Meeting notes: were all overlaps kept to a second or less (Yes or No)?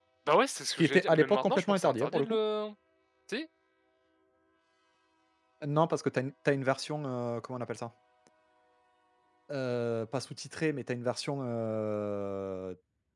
No